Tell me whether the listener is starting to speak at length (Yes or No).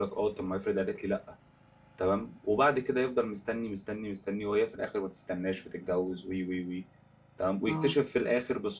No